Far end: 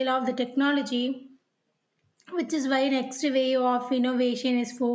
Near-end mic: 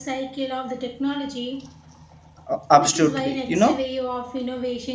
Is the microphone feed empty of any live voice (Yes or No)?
No